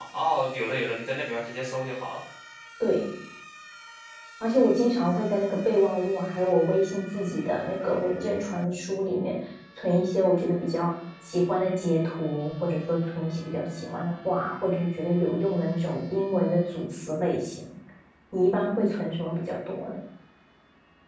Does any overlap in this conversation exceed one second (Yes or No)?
No